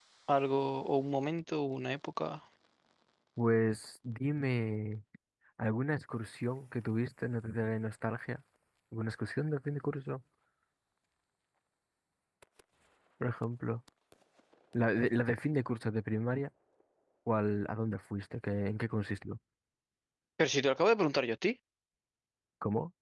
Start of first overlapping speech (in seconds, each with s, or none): none